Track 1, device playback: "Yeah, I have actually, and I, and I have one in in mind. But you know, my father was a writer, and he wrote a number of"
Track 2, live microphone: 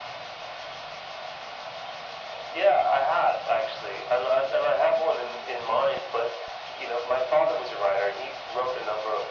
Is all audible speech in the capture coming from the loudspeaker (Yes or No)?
Yes